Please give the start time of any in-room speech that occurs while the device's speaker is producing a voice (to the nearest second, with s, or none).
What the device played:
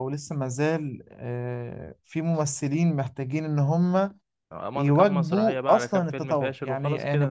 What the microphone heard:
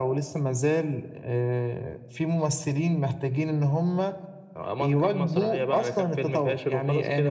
none